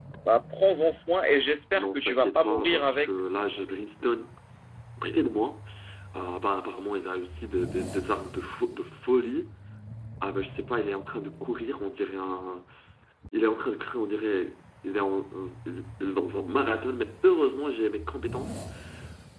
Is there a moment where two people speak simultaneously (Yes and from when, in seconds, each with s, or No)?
Yes, from 1.8 s